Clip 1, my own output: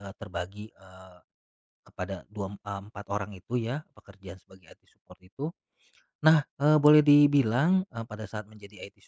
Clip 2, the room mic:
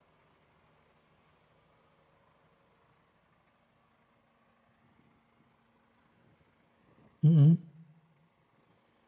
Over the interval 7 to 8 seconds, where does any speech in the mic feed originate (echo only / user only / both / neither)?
user only